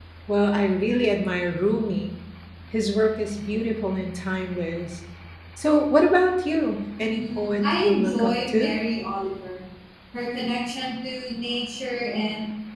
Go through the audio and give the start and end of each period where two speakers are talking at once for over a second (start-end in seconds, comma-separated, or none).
7.0-8.7